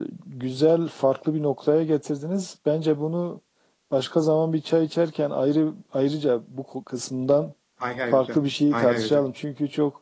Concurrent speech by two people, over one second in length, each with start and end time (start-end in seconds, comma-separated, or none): 8.1-9.3